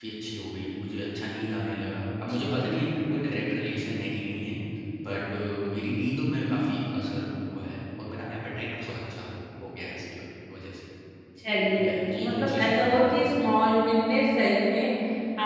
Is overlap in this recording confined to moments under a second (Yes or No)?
No